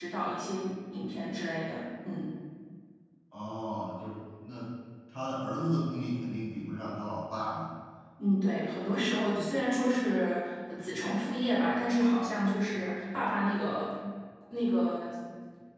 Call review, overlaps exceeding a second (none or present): none